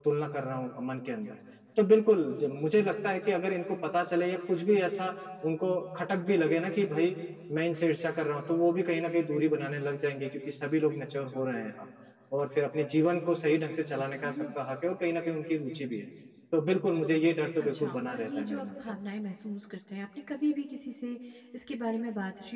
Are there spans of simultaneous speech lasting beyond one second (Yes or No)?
Yes